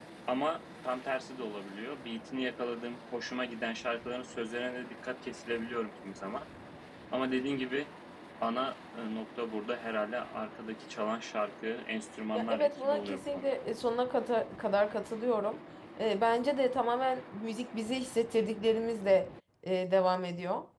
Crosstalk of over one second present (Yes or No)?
Yes